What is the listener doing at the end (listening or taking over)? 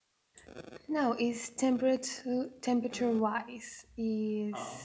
listening